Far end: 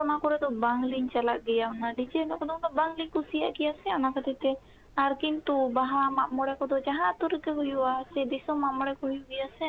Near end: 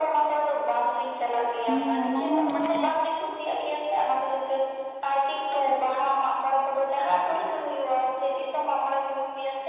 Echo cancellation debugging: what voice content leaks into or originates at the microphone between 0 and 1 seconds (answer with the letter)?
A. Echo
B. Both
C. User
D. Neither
A